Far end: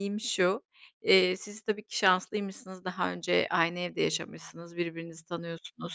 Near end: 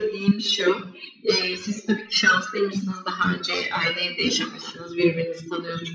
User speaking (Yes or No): No